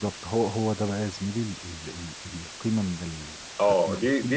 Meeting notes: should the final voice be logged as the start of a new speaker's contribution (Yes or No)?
Yes